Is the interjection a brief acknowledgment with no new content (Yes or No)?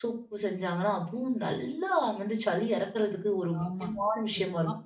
No